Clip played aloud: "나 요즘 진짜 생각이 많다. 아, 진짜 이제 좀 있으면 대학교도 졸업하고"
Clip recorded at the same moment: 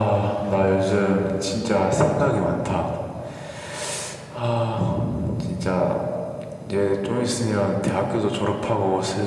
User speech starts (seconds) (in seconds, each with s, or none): none